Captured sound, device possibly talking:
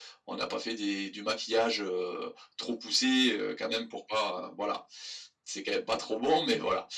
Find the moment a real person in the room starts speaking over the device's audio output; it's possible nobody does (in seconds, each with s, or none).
none